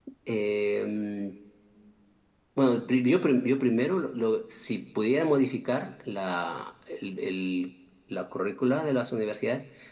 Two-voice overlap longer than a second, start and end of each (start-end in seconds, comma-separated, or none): none